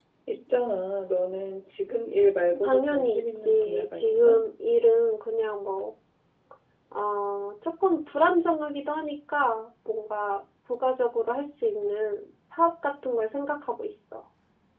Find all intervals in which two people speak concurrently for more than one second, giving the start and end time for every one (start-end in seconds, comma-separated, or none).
2.6-4.4